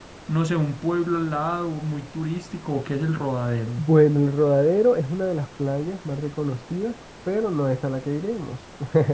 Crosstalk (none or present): none